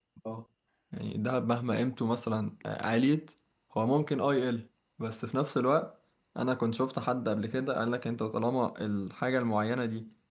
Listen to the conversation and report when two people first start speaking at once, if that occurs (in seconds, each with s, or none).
none